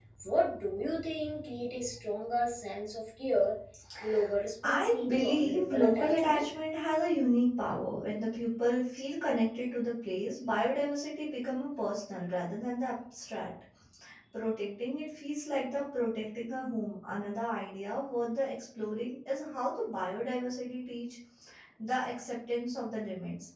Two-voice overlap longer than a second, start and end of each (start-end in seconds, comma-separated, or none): 4.6-6.4